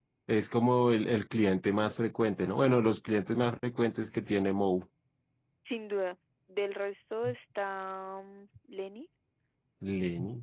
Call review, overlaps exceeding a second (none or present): none